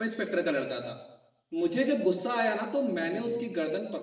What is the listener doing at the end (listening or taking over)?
listening